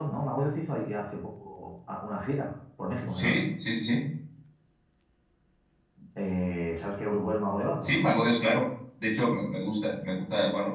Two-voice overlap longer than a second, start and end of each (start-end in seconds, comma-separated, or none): none